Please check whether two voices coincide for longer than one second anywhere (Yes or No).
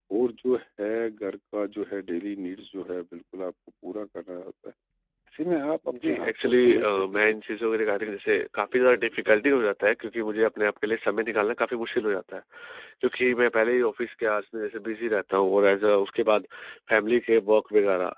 Yes